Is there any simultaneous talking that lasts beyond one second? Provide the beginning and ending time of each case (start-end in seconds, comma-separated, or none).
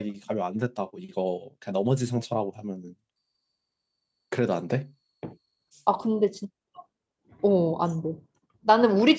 none